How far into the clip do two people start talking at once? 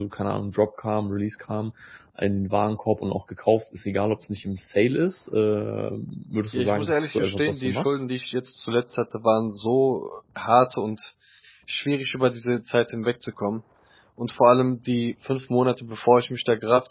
6.5 s

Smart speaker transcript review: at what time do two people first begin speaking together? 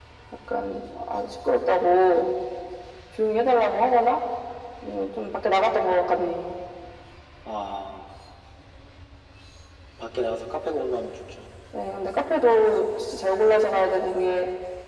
none

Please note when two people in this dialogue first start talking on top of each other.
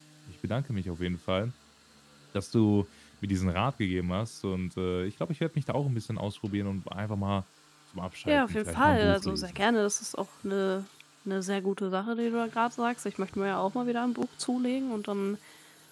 8.3 s

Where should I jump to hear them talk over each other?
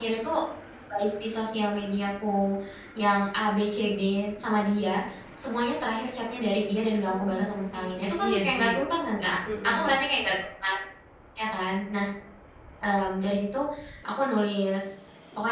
7.0 s

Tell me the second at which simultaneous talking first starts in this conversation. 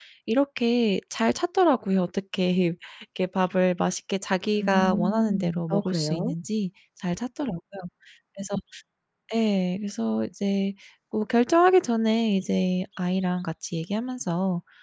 4.6 s

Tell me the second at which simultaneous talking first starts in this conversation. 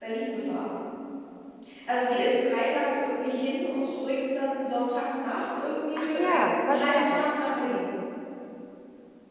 6.0 s

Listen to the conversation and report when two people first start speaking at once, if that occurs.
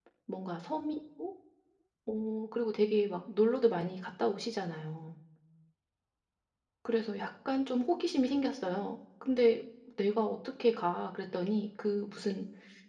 none

